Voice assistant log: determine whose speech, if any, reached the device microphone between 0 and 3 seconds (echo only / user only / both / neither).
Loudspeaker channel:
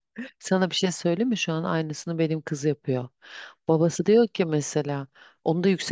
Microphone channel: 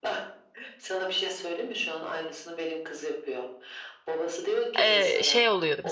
echo only